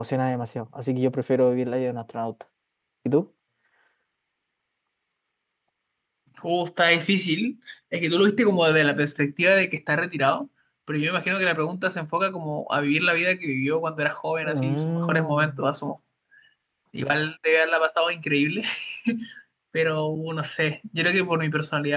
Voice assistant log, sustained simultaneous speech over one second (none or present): present